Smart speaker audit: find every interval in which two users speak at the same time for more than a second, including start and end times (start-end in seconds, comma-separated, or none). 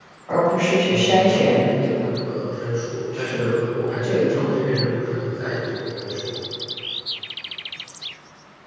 0.9-2.1